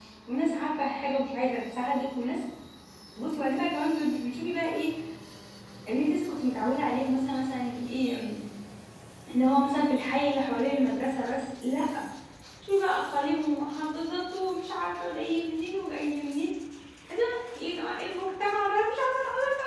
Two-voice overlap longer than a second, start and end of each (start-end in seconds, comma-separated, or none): none